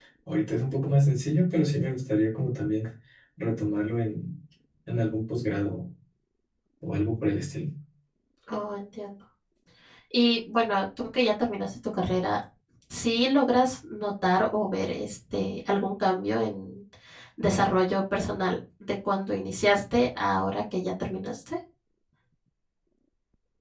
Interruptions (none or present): none